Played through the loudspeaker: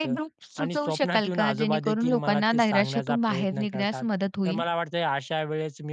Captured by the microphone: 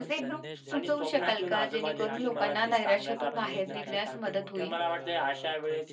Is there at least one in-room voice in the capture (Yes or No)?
Yes